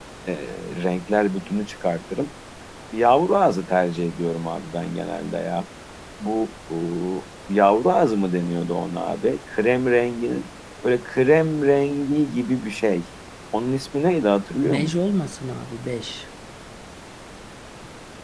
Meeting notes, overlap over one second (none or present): none